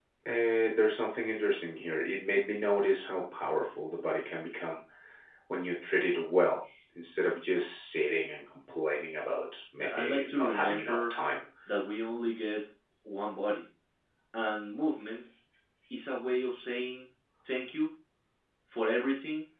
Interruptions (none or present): present